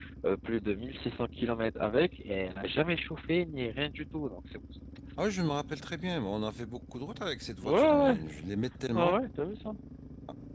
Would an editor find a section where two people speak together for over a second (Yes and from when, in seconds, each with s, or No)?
No